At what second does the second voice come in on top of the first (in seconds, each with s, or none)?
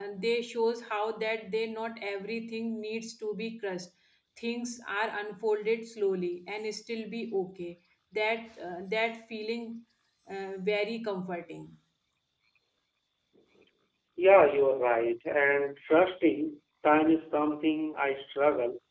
none